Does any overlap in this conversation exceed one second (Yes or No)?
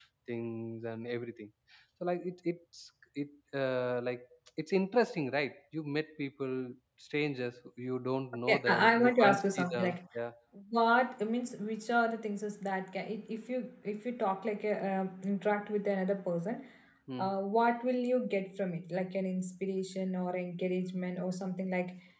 Yes